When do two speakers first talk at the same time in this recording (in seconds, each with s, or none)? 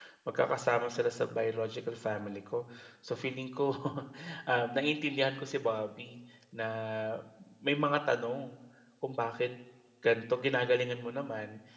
none